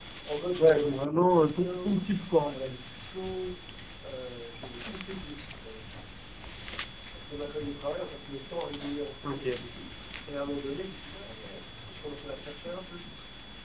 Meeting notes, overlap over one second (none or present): present